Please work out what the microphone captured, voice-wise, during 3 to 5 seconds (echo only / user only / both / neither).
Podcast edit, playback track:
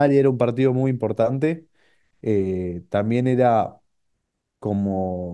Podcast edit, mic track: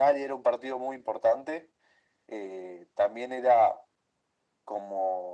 echo only